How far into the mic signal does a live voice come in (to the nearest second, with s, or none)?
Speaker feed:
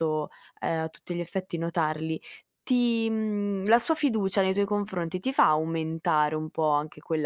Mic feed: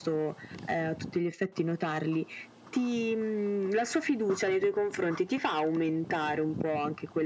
none